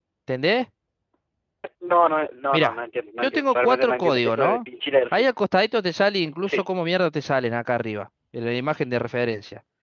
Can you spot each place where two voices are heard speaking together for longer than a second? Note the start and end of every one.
3.2-4.6

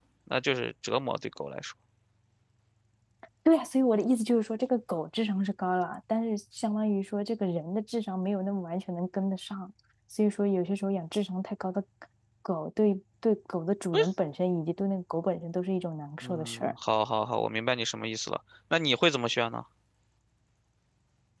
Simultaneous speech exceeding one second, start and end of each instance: none

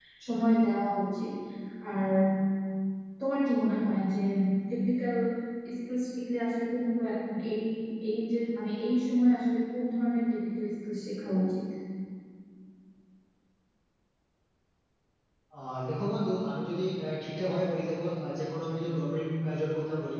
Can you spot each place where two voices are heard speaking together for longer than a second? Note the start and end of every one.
none

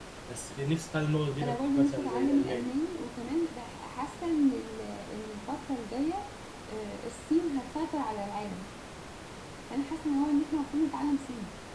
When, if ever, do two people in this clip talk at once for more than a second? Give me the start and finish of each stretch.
1.4-2.7

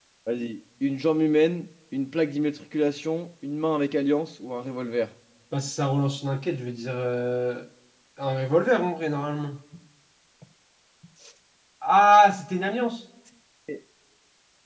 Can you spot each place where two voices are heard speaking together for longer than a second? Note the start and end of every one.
none

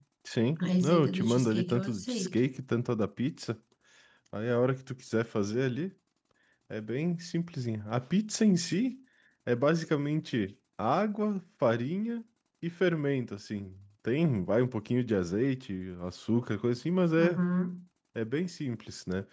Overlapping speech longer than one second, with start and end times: 0.6-2.4

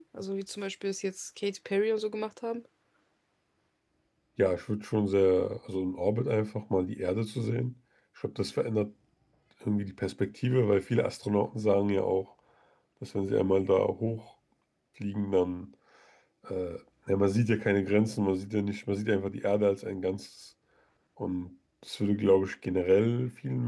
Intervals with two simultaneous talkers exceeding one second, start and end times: none

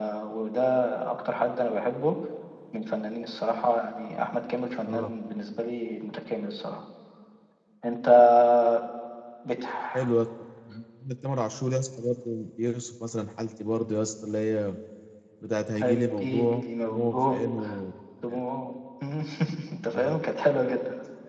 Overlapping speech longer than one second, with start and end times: 16.2-17.4

